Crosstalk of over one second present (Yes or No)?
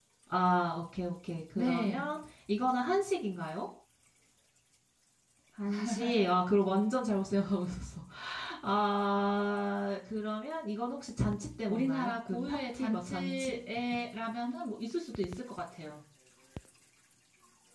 Yes